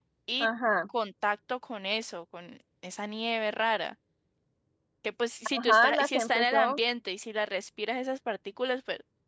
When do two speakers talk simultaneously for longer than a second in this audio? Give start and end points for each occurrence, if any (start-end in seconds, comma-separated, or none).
5.6-6.8